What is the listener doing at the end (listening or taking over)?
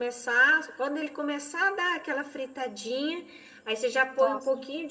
listening